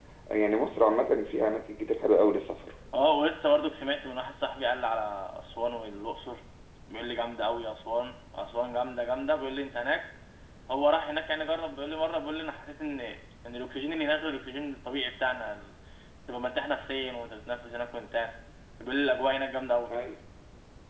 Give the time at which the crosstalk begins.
none

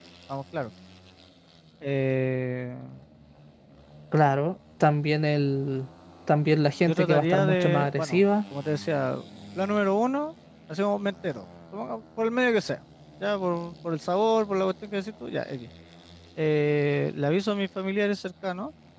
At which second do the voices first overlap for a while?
6.9 s

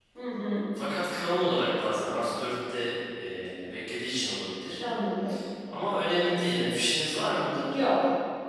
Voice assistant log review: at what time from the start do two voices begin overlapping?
none

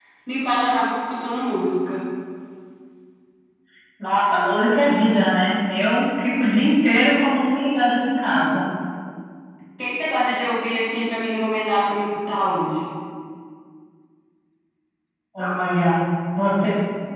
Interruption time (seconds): none

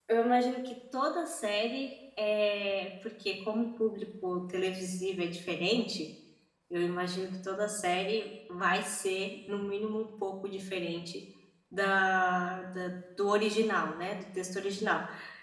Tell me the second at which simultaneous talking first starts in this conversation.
none

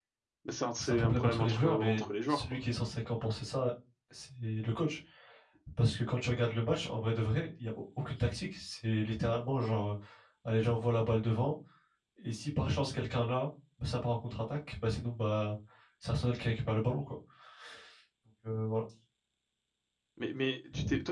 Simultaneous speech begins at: 0.8 s

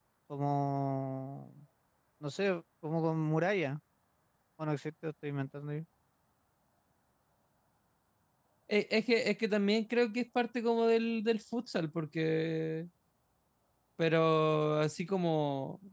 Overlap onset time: none

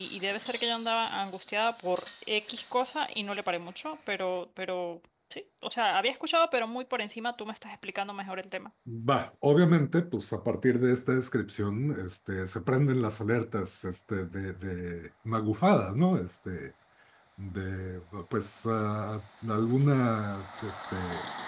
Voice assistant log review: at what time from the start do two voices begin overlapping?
none

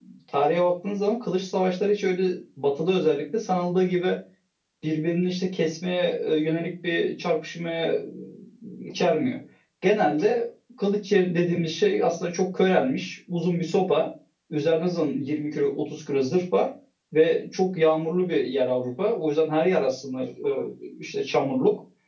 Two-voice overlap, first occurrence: none

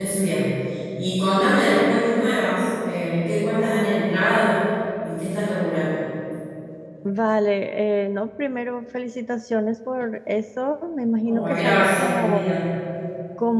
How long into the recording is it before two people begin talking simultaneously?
11.2 s

